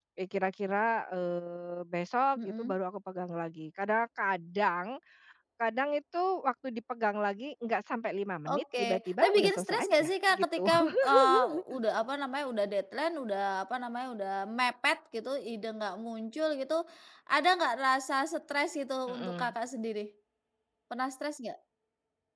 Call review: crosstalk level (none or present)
present